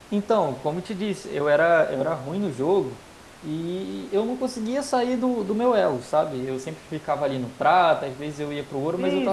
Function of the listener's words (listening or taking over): taking over